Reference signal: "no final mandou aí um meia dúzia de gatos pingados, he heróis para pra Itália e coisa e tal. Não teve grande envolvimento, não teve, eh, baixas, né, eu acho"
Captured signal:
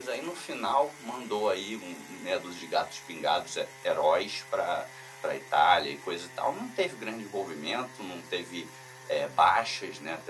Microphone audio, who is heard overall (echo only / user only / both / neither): echo only